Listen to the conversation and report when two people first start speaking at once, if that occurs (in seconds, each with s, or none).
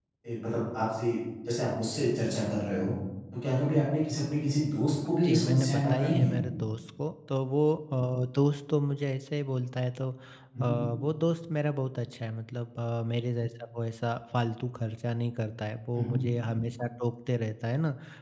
5.0 s